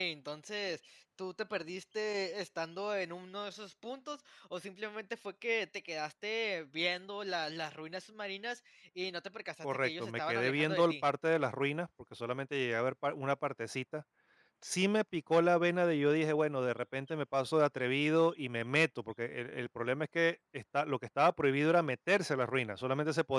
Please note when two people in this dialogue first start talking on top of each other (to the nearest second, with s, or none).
10 s